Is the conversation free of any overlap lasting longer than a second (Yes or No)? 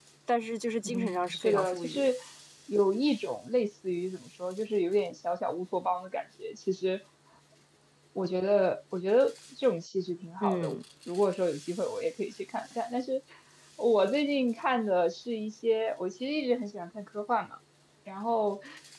No